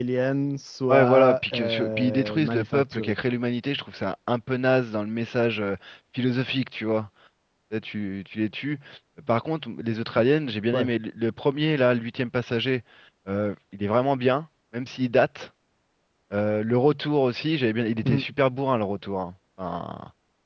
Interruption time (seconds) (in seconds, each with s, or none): 0.9 s